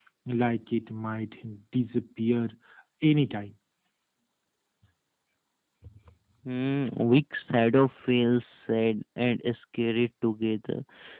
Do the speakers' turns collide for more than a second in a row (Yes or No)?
No